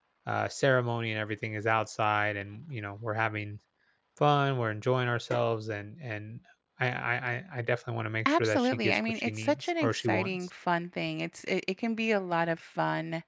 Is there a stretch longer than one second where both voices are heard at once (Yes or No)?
Yes